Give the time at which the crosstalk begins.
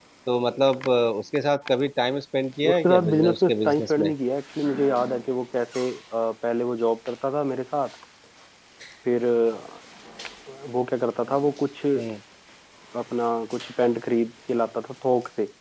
2.6 s

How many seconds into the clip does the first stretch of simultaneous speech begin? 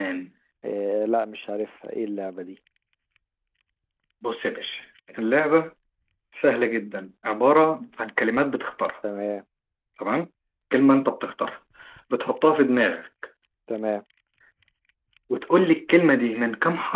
none

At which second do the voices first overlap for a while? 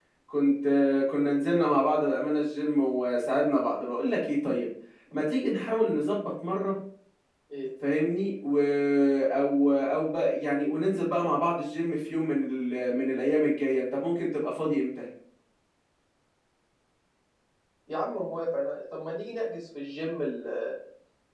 none

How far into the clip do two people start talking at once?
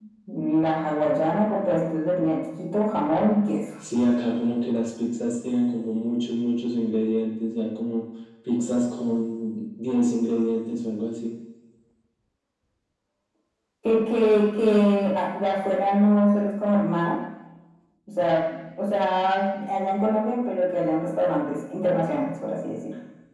none

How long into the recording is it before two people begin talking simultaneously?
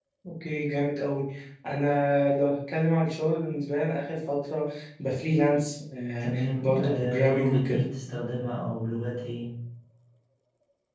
6.2 s

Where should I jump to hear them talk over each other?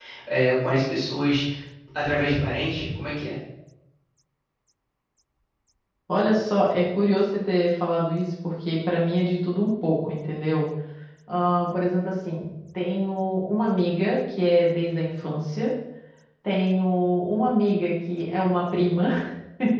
none

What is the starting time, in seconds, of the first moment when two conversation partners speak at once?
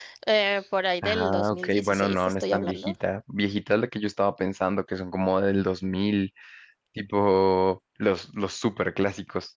1.0 s

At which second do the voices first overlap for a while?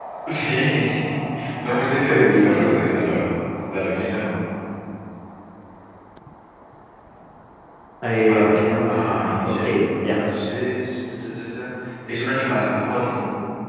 1.7 s

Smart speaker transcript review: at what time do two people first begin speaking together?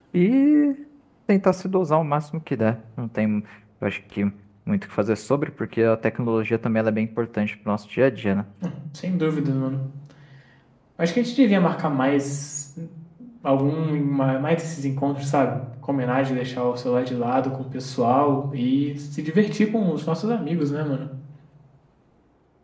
none

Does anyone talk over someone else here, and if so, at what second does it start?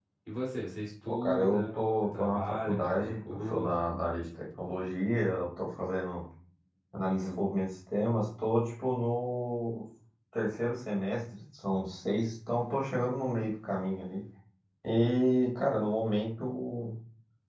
1.1 s

